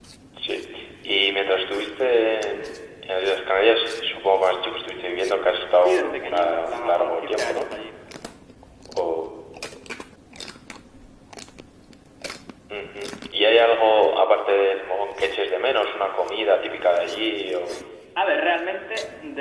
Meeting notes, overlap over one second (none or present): present